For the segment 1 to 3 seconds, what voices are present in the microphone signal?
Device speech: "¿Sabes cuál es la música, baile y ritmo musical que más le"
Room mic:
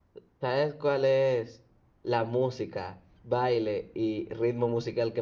echo only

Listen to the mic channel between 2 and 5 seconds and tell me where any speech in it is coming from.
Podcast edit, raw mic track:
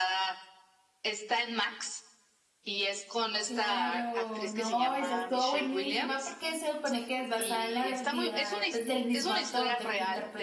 both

